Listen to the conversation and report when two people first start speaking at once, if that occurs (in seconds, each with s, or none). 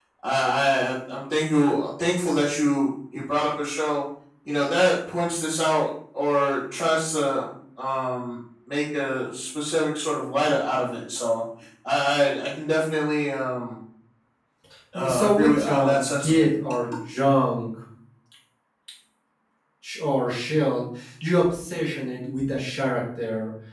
14.9 s